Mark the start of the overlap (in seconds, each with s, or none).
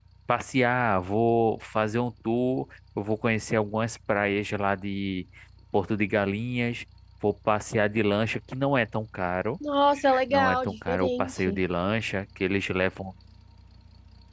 10.3 s